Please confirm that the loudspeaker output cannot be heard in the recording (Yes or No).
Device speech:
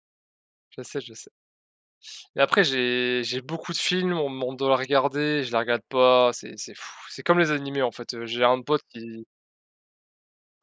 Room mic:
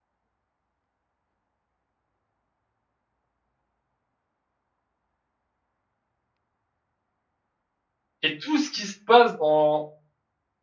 Yes